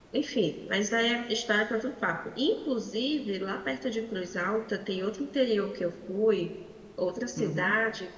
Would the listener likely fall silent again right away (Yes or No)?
Yes